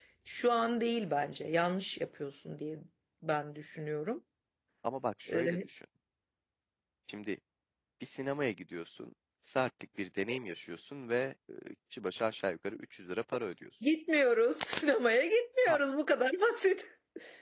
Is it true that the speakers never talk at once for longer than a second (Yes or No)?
Yes